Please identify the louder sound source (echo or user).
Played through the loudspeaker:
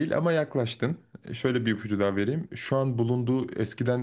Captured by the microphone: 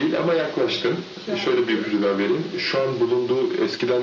echo